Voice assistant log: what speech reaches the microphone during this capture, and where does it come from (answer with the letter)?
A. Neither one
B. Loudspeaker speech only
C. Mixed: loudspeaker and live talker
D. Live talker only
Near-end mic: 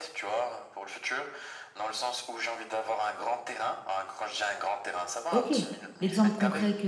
C